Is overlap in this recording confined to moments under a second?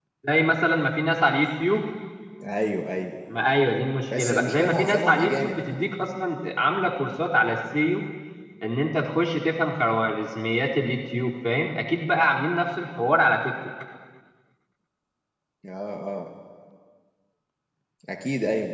No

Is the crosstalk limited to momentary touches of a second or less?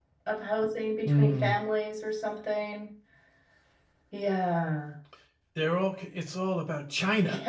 Yes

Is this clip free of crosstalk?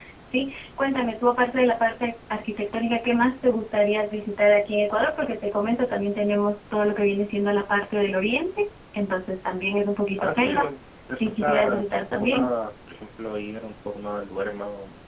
No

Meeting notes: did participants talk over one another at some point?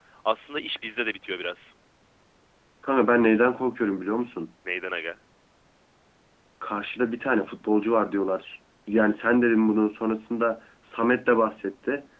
No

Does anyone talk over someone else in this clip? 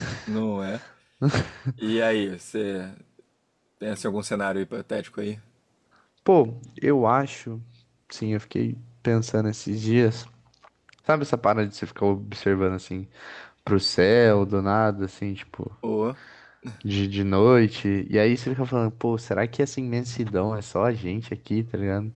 No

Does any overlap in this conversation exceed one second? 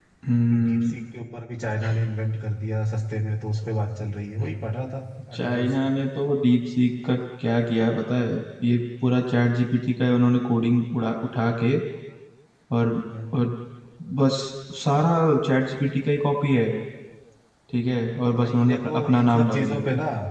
Yes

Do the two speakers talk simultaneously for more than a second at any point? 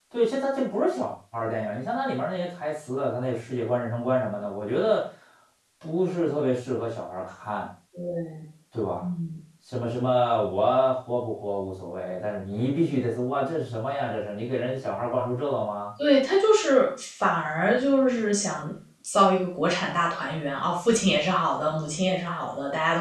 No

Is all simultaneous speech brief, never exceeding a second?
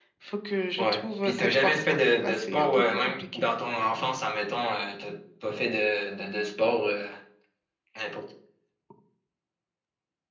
No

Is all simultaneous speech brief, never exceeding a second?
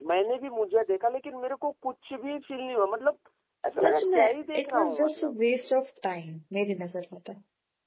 No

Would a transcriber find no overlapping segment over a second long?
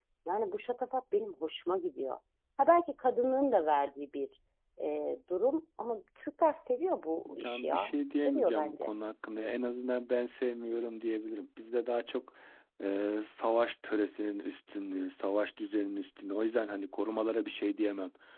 No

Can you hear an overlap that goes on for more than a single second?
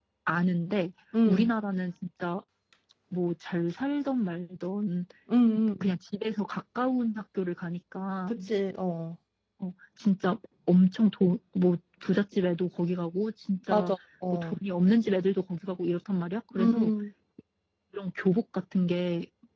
No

